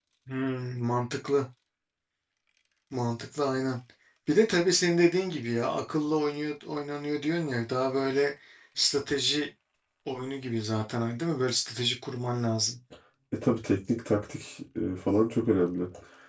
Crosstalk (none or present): none